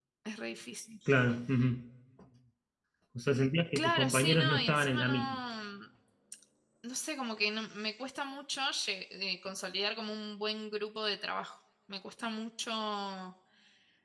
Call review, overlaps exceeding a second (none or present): present